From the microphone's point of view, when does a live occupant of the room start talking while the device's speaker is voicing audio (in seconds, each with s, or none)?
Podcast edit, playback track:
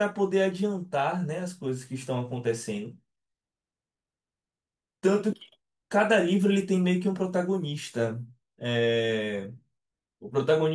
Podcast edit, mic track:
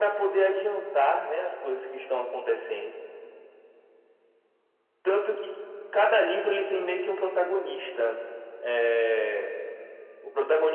none